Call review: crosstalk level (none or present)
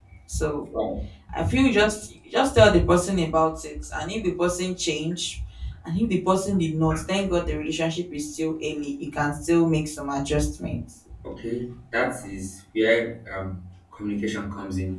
none